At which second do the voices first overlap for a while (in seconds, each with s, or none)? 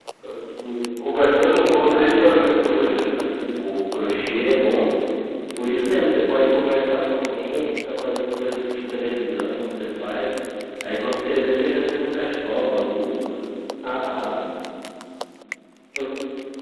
1.9 s